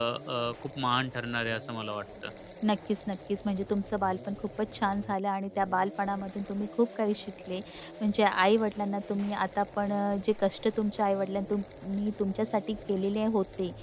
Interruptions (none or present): none